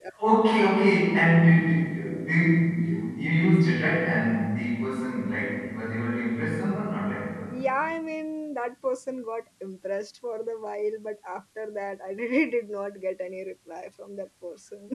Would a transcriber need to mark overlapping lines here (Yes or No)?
No